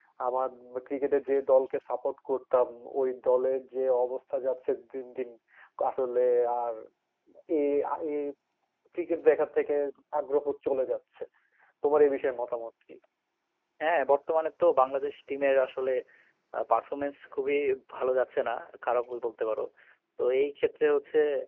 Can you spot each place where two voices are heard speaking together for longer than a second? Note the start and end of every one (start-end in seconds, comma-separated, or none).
none